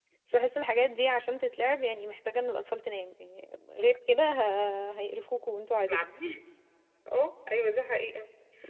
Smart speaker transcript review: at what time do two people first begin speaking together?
none

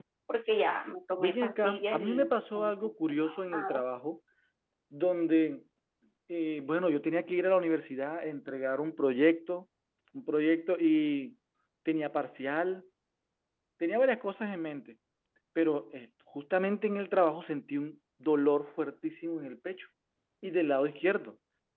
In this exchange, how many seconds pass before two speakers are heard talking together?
1.2 s

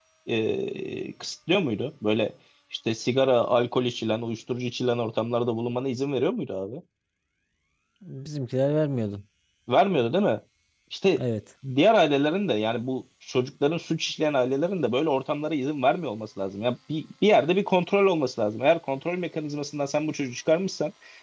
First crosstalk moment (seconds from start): none

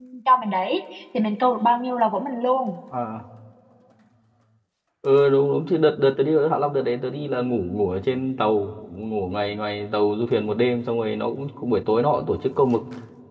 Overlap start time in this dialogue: none

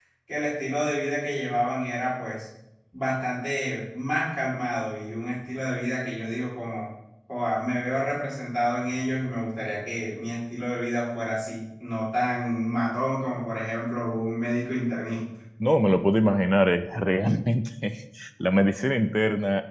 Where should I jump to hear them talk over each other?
none

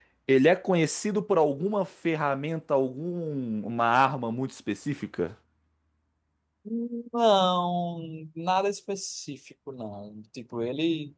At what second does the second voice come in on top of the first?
none

